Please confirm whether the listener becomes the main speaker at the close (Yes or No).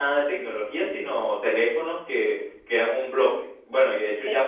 No